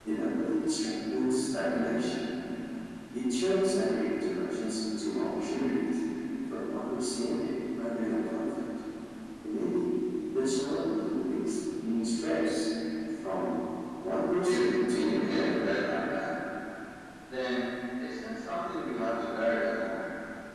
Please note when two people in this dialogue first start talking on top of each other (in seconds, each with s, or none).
14.4 s